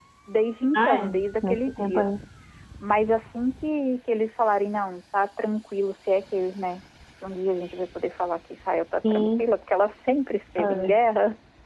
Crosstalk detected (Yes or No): Yes